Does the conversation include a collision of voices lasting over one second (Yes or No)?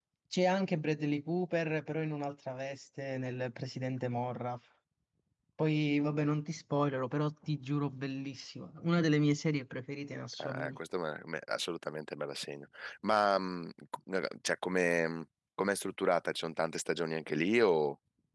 No